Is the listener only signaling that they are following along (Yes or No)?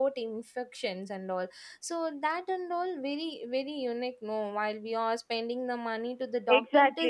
No